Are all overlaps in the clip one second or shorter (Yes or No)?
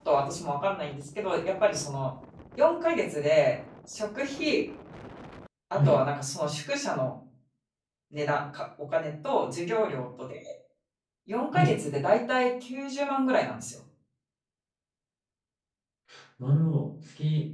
Yes